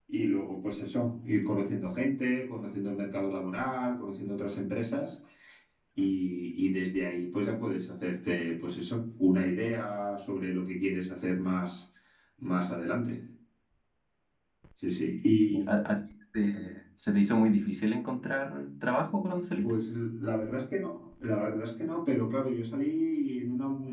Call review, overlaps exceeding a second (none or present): none